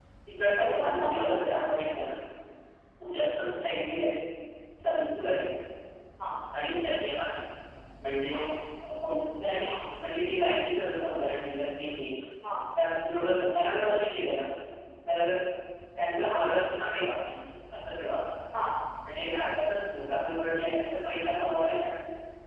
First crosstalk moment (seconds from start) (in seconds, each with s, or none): 0.6 s